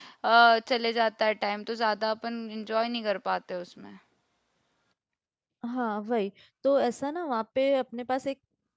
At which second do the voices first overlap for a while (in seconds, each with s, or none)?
none